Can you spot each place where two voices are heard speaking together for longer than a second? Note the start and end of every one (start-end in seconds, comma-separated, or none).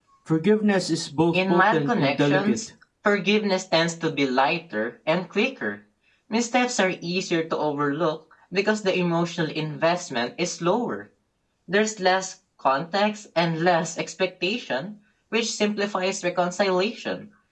1.3-2.6